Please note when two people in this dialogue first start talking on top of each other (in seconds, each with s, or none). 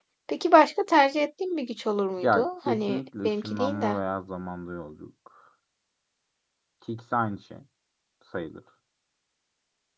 2.2 s